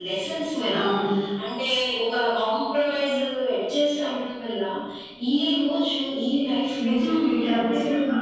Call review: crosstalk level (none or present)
present